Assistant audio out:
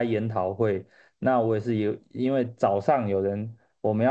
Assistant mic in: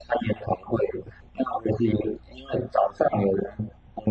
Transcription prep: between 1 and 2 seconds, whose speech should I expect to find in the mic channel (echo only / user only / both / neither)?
echo only